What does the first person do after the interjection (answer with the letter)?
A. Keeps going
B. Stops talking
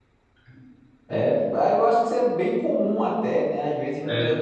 A